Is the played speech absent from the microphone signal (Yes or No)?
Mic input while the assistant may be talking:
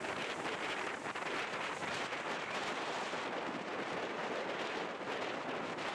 Yes